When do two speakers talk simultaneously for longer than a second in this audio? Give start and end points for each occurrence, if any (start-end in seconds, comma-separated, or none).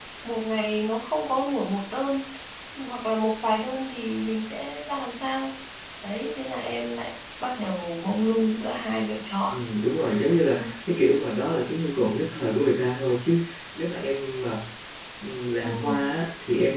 none